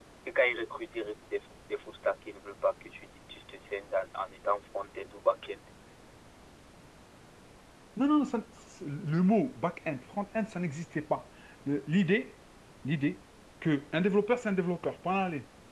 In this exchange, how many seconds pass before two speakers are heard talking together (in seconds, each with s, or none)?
none